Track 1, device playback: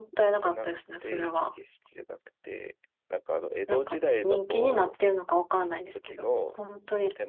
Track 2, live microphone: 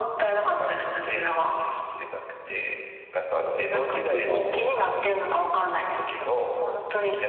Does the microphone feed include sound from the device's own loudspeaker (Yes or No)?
Yes